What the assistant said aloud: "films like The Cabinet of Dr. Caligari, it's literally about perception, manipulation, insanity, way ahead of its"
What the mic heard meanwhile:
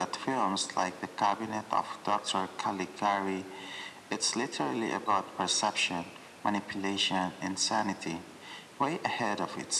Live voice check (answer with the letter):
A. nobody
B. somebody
A